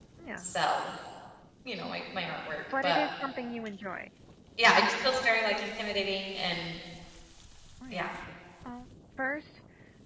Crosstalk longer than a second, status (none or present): none